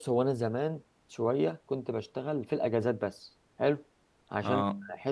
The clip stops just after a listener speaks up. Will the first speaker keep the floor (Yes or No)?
Yes